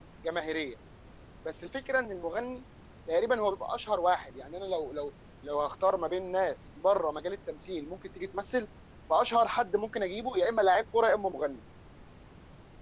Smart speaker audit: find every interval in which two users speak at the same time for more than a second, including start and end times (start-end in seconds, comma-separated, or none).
none